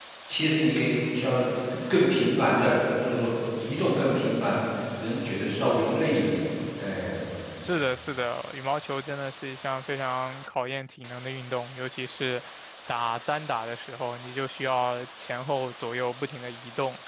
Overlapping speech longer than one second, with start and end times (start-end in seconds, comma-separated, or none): none